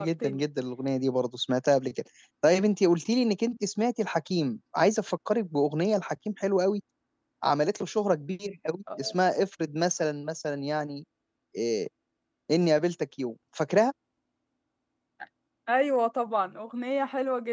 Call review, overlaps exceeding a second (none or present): none